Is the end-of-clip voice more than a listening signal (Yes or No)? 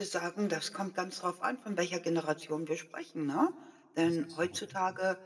No